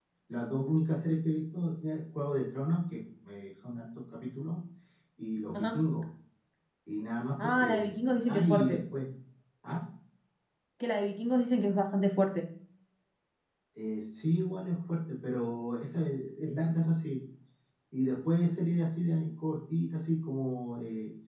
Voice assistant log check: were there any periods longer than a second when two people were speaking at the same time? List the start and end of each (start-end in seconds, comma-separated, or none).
7.4-8.8